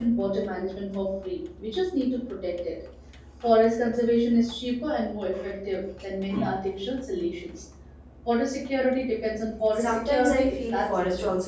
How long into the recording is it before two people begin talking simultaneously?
9.8 s

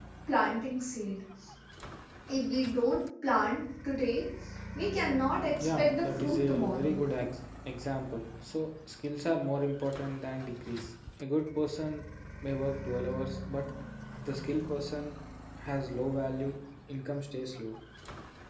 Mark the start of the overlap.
5.6 s

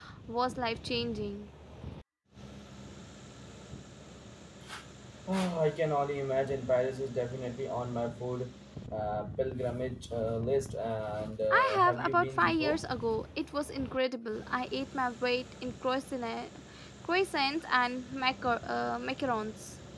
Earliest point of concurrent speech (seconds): 11.5 s

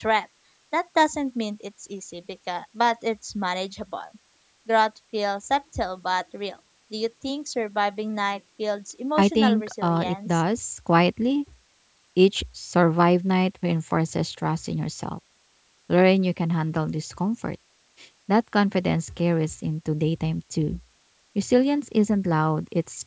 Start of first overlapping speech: 9.2 s

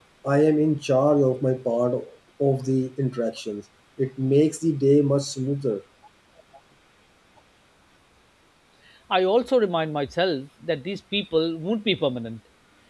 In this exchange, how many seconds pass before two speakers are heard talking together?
none

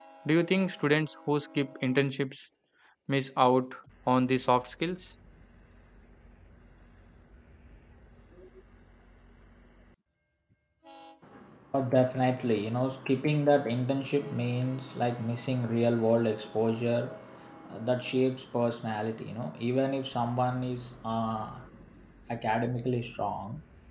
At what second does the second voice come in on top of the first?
none

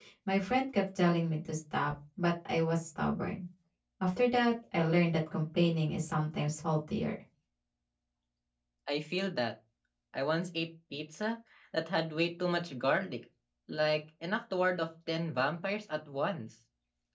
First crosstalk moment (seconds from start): none

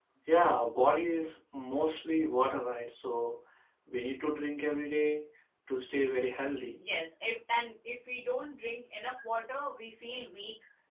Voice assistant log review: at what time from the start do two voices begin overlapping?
none

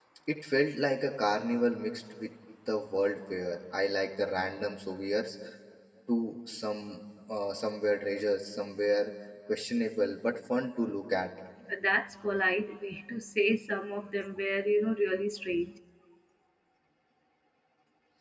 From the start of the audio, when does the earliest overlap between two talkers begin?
none

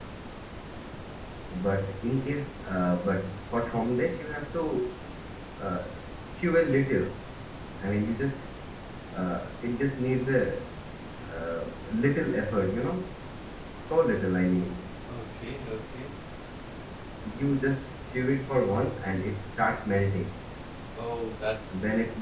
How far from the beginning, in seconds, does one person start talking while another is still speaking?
none

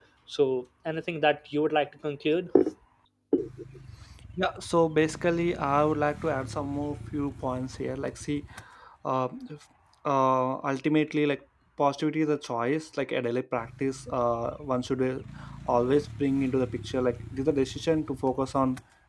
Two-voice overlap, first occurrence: none

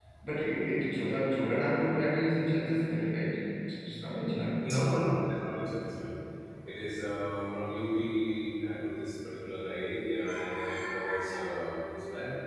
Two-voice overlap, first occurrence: none

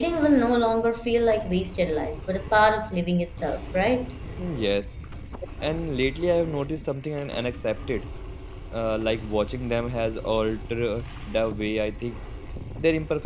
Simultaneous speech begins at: none

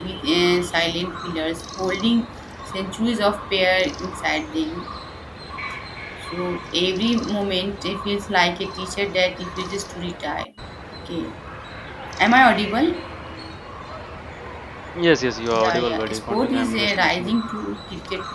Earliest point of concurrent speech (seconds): 15.6 s

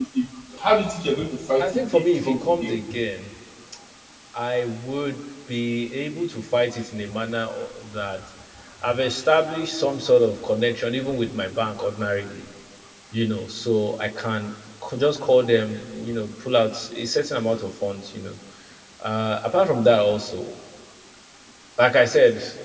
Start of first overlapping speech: 1.6 s

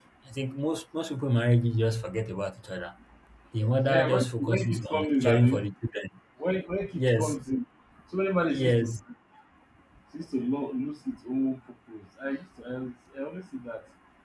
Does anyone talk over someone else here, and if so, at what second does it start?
3.9 s

